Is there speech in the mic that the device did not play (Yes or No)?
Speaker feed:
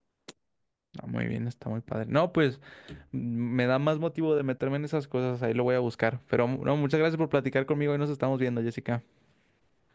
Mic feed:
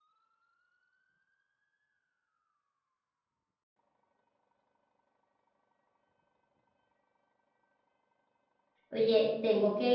Yes